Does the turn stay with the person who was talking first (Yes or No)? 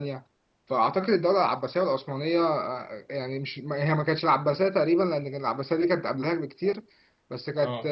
Yes